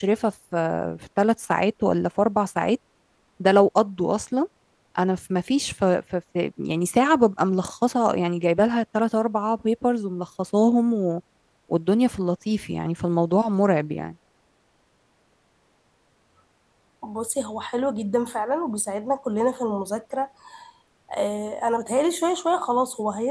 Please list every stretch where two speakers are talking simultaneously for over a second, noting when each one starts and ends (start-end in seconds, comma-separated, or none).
none